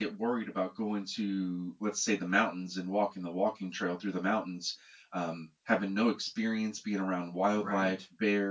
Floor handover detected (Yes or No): No